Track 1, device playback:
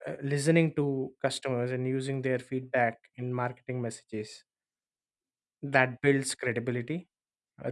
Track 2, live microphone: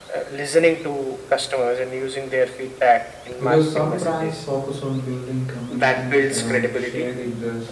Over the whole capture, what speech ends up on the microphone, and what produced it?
both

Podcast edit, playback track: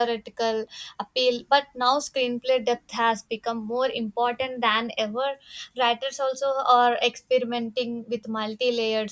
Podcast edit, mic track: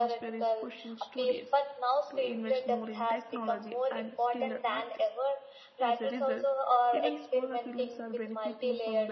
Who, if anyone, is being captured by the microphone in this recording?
both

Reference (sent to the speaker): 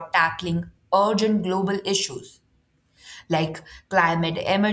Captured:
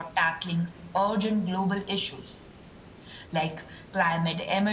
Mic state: echo only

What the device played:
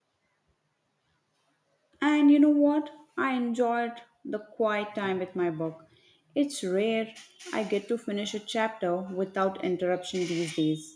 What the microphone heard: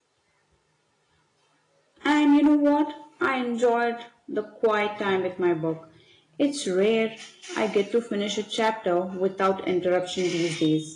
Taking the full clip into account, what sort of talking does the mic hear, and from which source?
echo only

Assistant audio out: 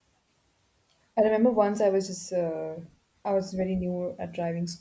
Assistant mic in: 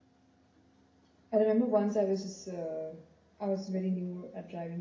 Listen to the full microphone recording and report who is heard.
echo only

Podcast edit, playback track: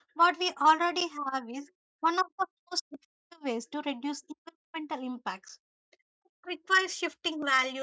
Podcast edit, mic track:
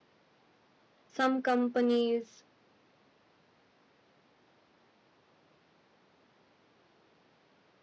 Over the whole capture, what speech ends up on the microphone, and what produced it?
user only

